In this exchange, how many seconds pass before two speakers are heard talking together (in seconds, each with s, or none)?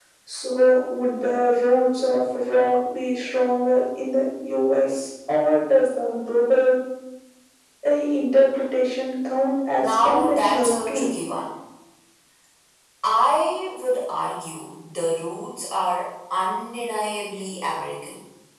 9.8 s